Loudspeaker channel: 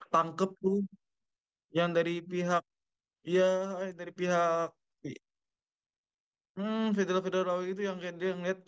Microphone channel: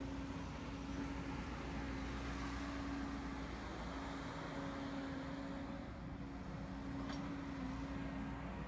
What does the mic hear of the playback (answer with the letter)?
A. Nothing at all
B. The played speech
A